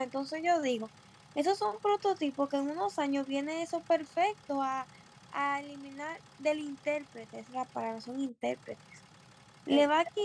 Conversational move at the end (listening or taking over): listening